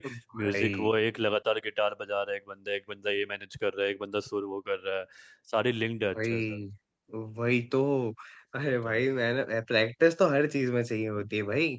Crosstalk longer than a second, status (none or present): none